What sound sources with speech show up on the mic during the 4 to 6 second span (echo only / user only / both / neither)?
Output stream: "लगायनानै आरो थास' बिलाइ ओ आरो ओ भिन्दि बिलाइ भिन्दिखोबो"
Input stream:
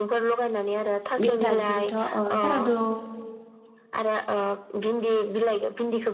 echo only